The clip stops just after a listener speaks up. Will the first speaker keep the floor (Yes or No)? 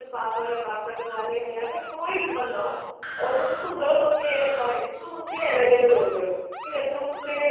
Yes